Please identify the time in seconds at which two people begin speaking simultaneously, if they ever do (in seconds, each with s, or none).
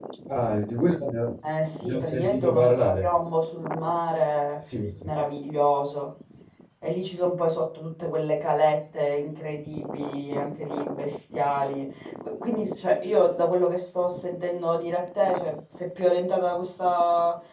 1.8 s